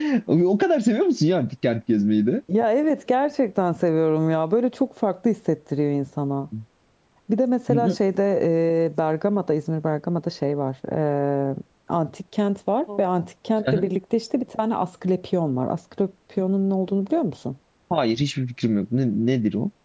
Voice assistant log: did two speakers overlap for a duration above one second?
No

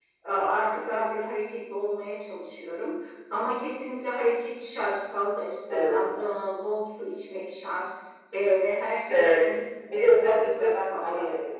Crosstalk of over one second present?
Yes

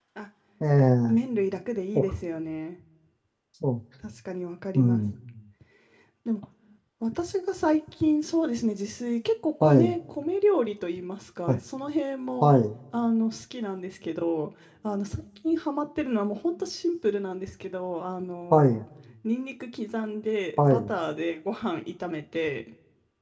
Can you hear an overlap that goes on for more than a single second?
No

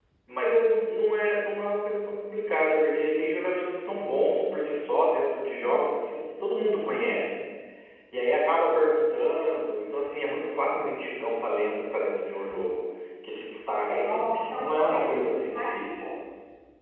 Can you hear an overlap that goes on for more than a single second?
Yes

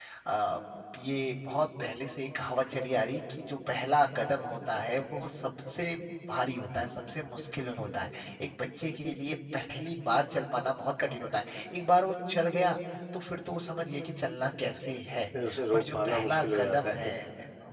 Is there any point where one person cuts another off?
Yes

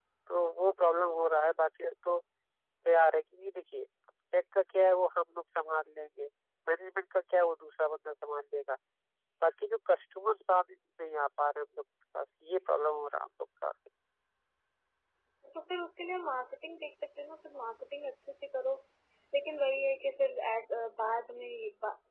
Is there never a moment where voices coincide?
Yes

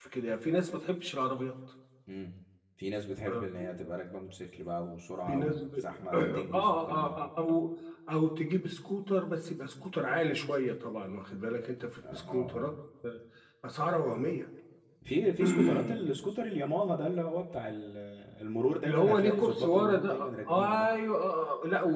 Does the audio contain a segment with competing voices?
Yes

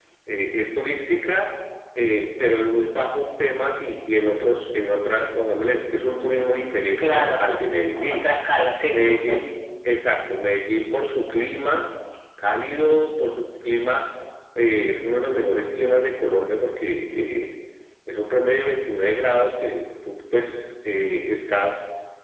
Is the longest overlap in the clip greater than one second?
No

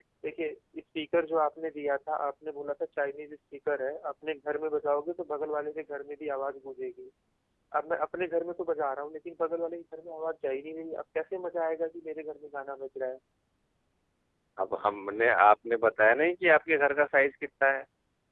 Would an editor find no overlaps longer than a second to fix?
Yes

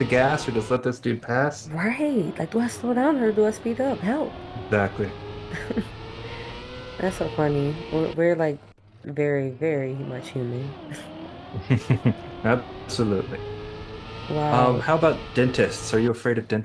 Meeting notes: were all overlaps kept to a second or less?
Yes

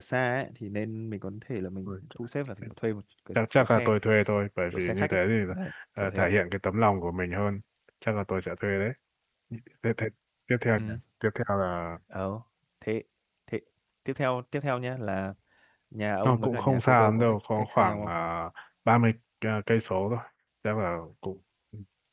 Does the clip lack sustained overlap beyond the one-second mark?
No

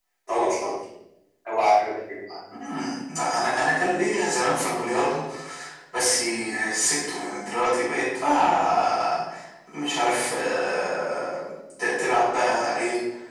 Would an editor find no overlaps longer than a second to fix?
Yes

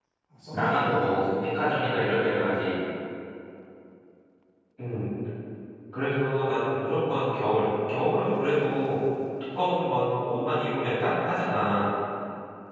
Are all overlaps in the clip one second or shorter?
No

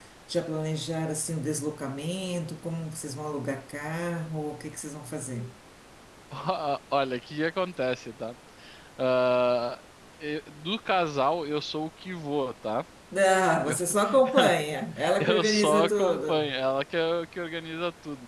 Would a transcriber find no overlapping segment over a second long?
No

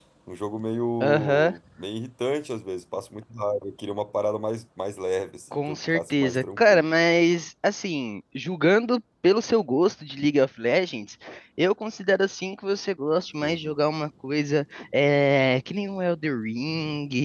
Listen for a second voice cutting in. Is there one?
Yes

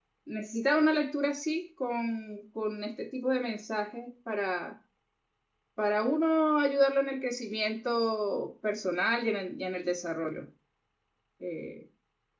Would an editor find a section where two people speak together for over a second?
No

